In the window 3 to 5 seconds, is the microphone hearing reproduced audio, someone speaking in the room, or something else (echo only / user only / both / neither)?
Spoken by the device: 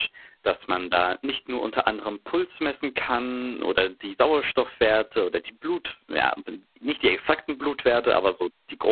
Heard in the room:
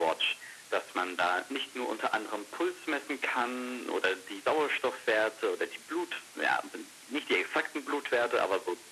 echo only